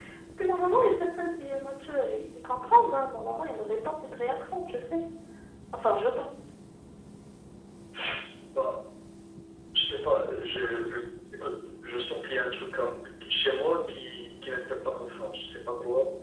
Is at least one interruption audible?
No

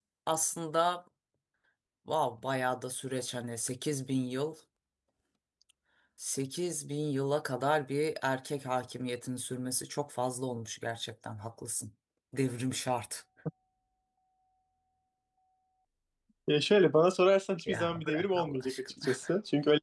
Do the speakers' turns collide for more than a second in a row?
Yes, from 17.7 s

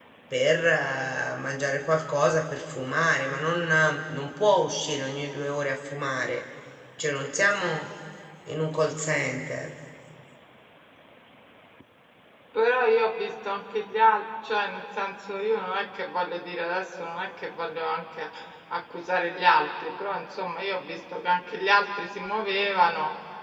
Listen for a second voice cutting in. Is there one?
No

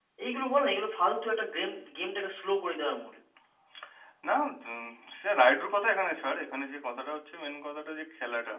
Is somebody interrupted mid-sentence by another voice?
No

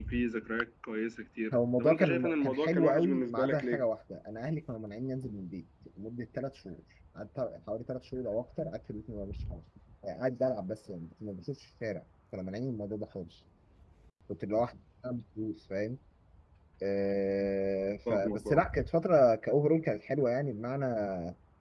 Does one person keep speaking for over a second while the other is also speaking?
Yes, from 1.5 s

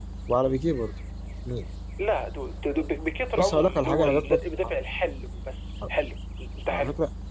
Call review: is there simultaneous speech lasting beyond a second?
Yes, from 3.4 s

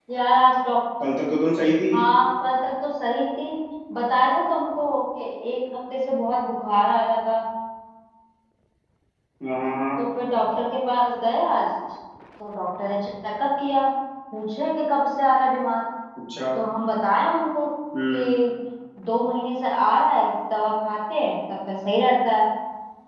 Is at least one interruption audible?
No

